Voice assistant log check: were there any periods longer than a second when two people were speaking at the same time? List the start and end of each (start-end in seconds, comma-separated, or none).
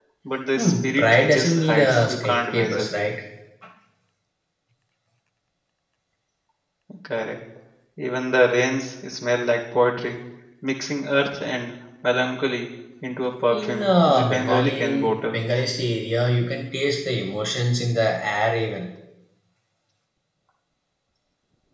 0.6-2.9, 13.5-15.4